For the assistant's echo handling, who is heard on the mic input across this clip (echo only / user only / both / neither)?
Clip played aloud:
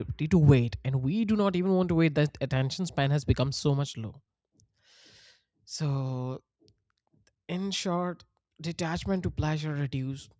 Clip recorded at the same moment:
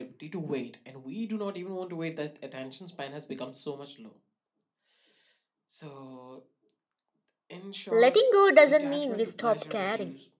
both